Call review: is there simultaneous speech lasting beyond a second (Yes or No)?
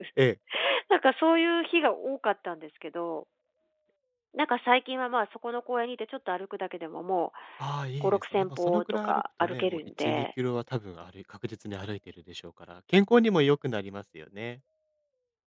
Yes